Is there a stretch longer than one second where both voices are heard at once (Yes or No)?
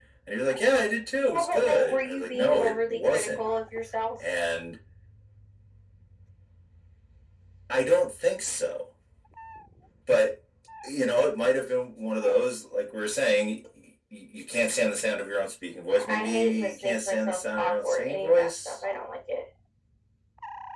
Yes